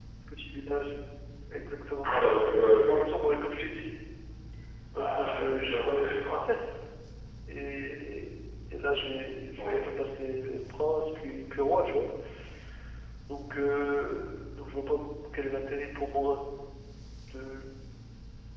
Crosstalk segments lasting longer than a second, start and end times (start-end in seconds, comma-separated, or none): 5.0-6.4